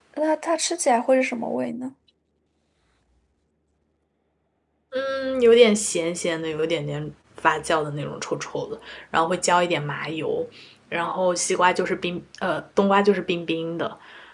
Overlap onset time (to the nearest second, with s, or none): none